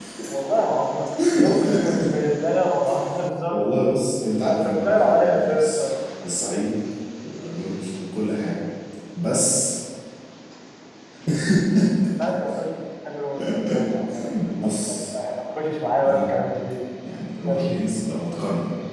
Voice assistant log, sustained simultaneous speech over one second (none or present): present